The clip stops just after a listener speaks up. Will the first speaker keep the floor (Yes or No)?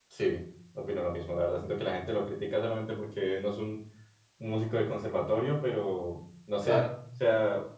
Yes